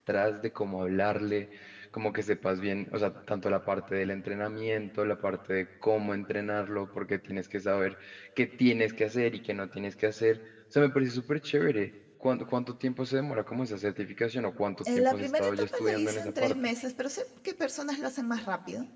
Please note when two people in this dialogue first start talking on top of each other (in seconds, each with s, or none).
14.8 s